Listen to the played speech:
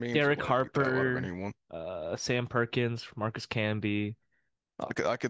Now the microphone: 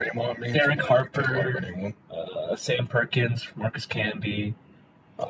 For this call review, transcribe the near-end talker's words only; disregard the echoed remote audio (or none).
none